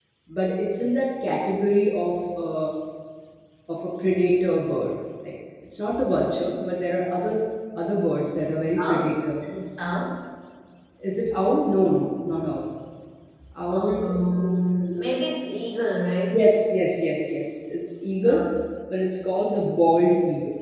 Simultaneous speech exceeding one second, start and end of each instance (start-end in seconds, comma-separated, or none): 13.7-15.0